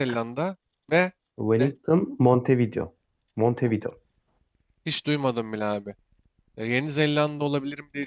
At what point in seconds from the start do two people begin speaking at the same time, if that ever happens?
none

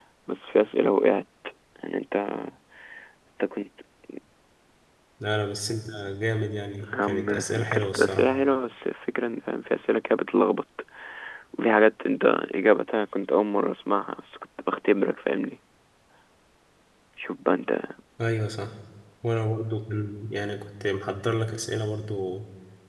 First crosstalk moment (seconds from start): 6.8 s

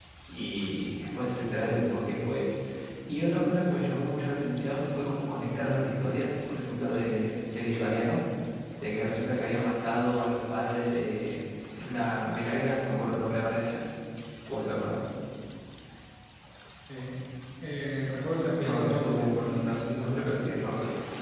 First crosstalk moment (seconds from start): 18.3 s

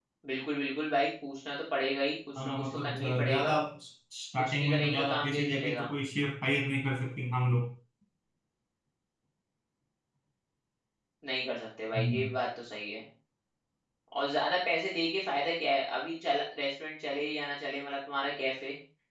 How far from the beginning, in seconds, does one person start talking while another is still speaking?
2.4 s

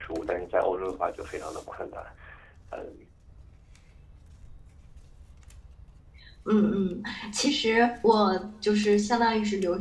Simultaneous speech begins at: none

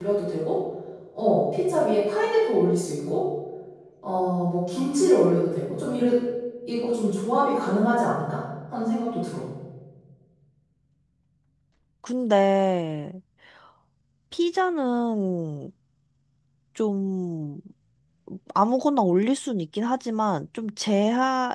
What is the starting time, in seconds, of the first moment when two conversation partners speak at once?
none

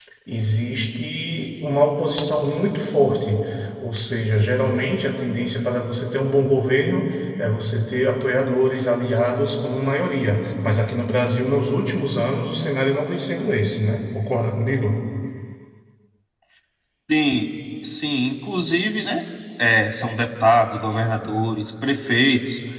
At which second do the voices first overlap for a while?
none

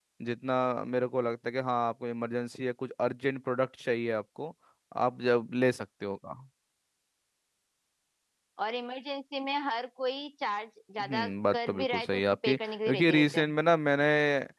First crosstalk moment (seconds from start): 11.0 s

